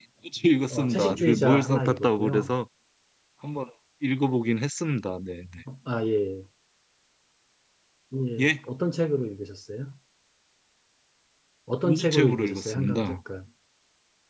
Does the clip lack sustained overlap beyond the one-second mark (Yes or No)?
No